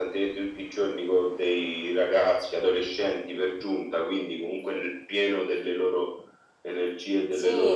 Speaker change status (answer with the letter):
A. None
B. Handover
B